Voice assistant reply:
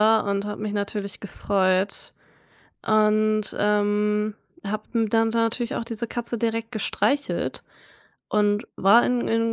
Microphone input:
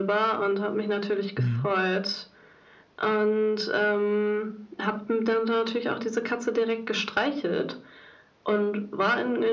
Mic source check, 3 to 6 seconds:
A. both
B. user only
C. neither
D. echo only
D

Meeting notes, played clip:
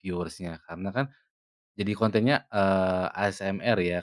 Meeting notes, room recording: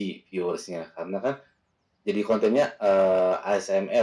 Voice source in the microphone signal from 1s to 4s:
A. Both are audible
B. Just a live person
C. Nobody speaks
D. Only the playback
D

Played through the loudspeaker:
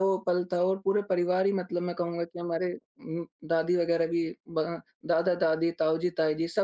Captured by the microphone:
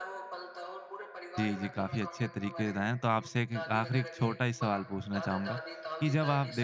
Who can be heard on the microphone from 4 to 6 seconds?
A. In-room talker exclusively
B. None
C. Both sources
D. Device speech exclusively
C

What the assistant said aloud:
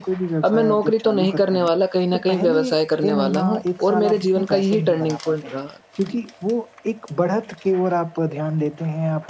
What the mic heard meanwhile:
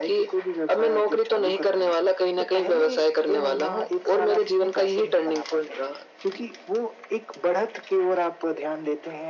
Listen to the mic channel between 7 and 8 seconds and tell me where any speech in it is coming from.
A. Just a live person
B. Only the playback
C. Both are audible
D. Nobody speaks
B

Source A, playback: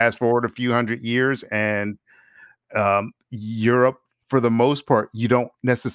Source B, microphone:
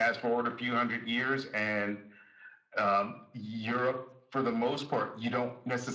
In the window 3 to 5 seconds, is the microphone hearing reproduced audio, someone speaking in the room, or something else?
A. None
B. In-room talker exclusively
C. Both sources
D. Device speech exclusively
D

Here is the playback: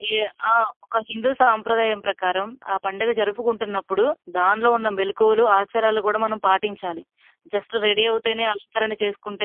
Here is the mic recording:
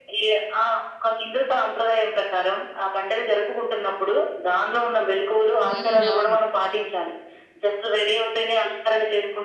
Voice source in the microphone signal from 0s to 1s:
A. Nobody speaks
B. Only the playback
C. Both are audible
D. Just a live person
B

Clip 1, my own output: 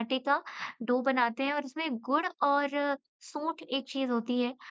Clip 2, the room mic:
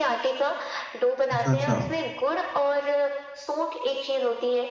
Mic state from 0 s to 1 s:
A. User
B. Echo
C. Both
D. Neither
B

